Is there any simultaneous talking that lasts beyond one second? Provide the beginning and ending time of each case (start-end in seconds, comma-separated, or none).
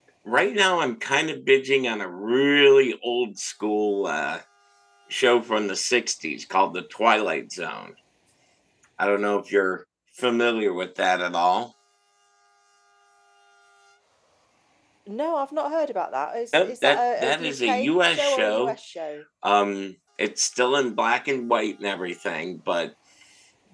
16.5-18.8